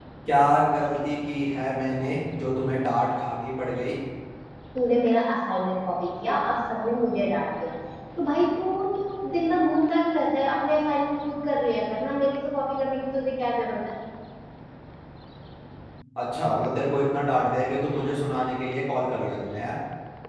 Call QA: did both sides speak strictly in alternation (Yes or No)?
Yes